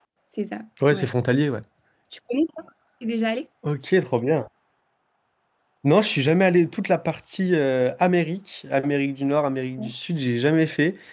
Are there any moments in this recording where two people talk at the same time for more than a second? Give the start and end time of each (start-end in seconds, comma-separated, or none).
none